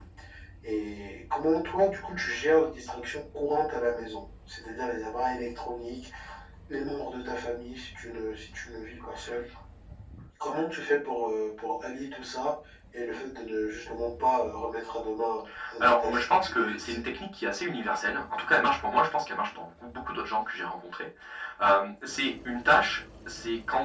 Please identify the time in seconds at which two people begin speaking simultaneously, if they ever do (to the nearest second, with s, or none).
16 s